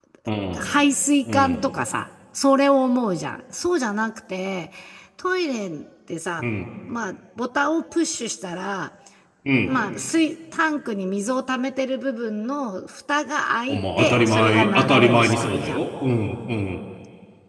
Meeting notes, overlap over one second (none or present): present